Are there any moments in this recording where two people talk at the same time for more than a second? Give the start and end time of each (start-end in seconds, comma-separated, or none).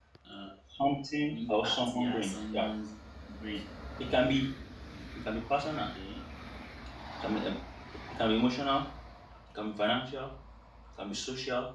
1.5-2.7